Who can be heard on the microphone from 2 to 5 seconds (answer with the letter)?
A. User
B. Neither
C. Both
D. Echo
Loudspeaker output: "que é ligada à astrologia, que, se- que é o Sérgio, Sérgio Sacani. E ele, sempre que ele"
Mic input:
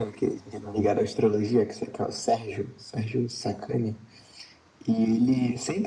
D